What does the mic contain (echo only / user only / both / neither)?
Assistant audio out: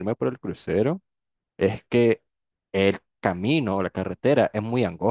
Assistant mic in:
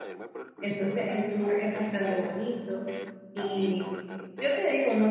both